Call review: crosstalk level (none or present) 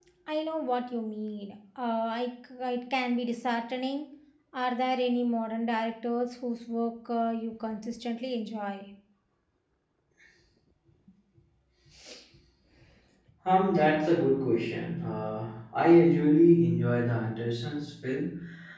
none